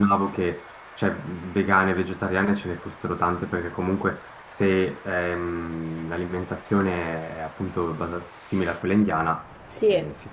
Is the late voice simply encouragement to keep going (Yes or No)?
No